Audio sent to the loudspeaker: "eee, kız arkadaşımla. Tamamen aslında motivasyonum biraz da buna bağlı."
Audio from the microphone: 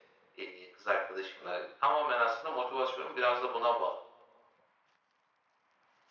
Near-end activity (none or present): none